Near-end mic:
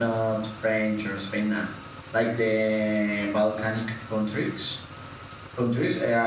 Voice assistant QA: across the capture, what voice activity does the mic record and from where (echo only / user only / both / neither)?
user only